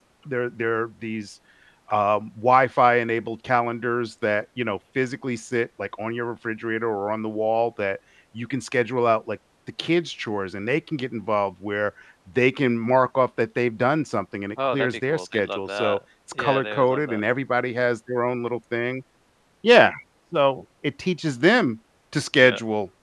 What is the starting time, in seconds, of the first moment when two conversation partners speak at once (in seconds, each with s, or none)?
14.6 s